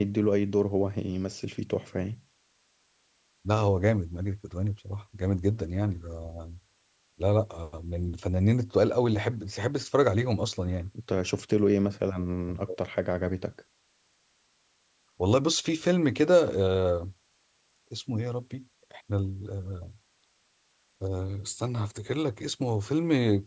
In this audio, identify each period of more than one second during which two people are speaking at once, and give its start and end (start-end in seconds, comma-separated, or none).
none